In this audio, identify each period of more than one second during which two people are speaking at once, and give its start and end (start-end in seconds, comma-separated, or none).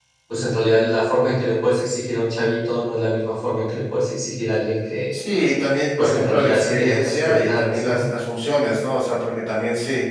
6.0-8.1